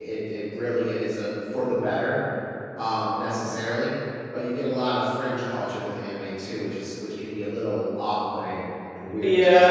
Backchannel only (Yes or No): No